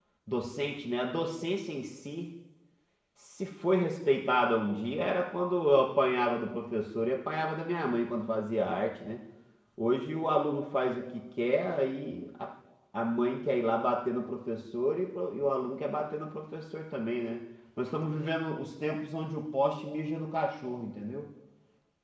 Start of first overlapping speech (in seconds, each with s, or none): none